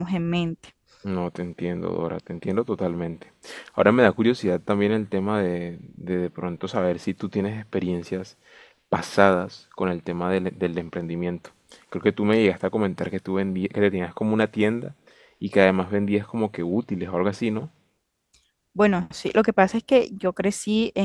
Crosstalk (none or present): none